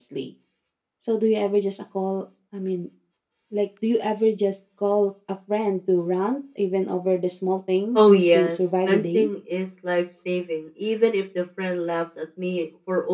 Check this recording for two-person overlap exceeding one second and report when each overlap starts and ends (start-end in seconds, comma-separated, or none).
8.0-9.3